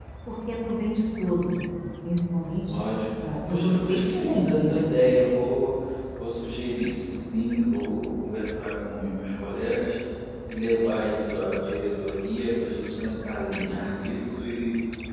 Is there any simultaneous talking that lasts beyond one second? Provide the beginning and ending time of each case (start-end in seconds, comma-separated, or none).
3.2-5.2